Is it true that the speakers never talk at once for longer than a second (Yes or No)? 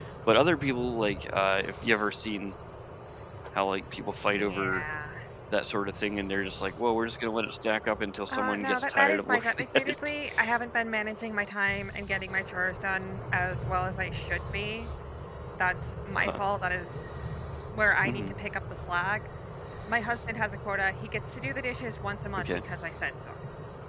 No